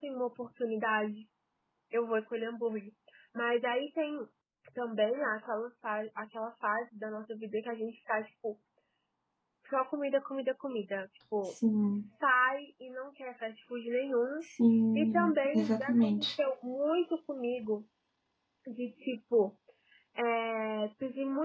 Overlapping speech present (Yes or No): Yes